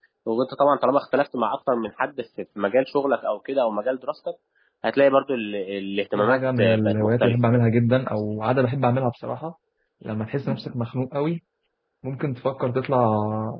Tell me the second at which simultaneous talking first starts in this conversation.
6.1 s

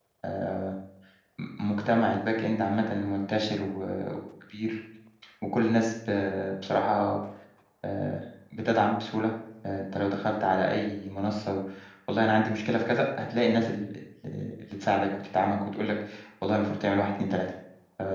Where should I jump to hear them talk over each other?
none

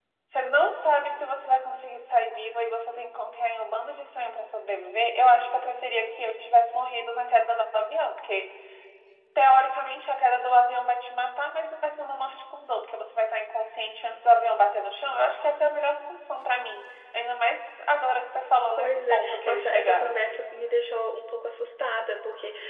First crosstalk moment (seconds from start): 18.8 s

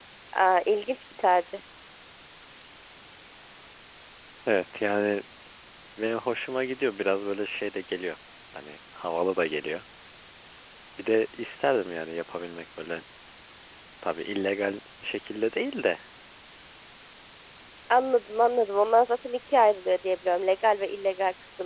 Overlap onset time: none

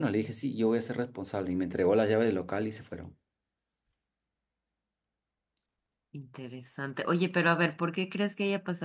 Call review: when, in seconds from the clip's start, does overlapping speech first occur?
none

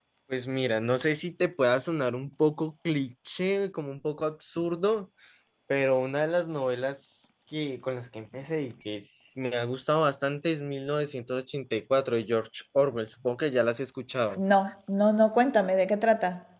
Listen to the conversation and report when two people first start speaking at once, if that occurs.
none

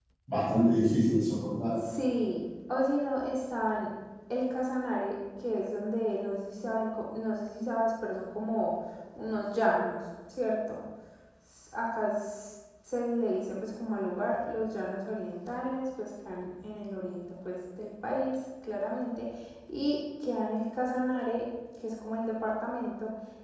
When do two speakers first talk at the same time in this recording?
none

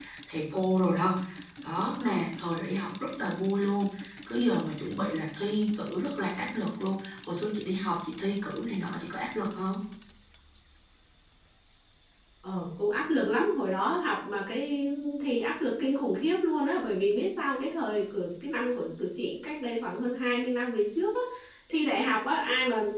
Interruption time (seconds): none

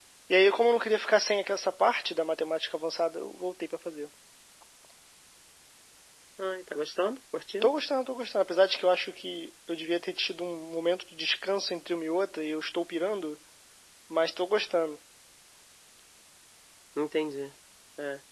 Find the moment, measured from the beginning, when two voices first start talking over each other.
none

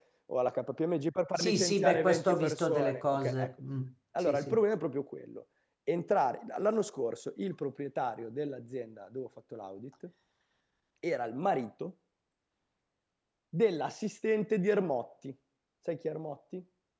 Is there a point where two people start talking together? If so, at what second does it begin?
1.4 s

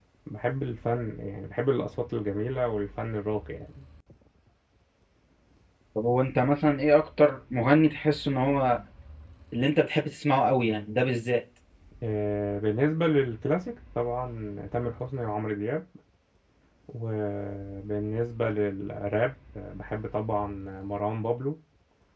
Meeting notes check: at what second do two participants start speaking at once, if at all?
none

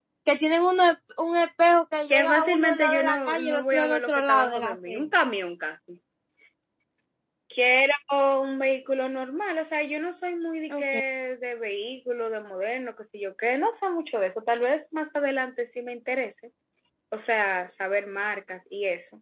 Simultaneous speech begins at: 2.1 s

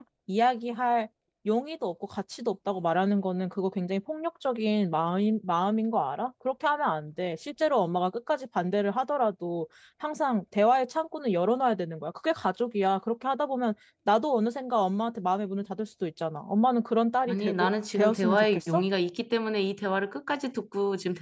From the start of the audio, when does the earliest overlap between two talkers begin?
17.3 s

